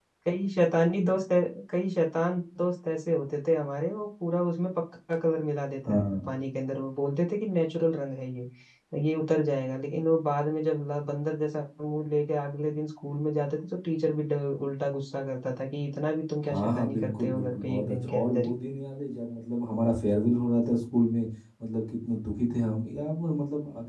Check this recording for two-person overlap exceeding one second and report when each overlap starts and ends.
16.5-18.6

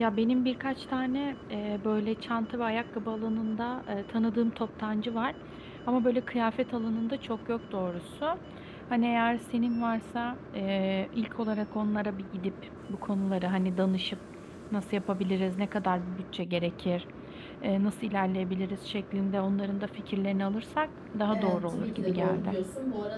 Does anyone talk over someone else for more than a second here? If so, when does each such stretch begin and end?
21.3-22.6

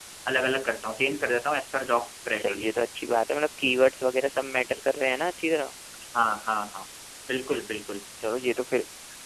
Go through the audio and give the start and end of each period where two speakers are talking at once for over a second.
none

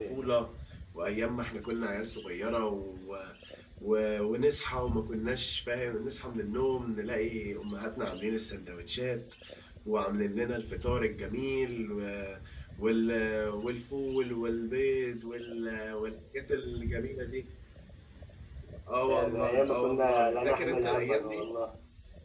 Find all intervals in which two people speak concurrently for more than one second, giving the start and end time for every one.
19.1-21.5

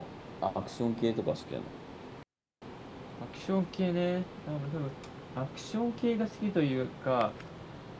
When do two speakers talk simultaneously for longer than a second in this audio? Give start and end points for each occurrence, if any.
none

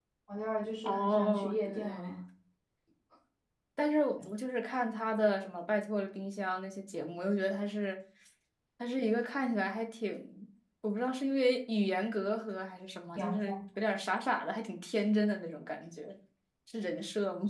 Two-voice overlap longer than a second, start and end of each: 0.8-2.1

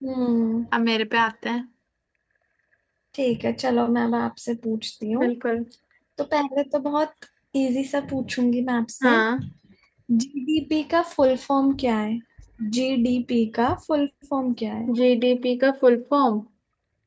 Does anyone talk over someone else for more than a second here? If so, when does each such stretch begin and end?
none

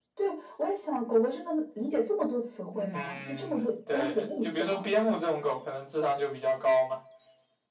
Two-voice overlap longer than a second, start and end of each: 2.7-4.9

